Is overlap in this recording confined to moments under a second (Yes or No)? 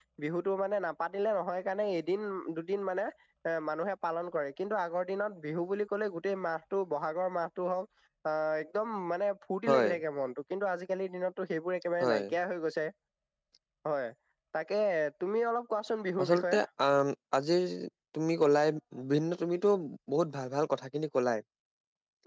Yes